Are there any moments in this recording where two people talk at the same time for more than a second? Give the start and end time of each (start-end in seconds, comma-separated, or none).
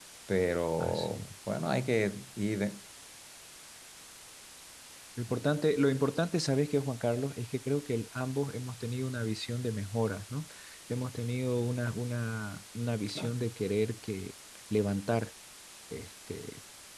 none